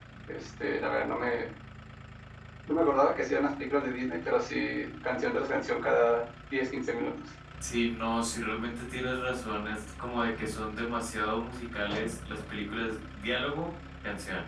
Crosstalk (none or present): none